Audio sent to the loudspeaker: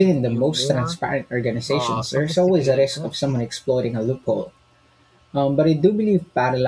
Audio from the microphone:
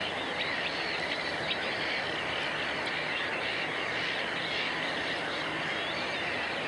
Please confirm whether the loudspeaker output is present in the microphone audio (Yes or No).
No